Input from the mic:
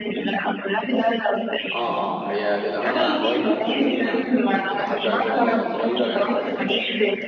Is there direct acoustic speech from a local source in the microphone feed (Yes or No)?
Yes